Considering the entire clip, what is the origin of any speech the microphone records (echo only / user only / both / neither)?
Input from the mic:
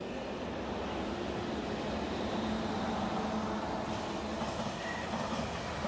neither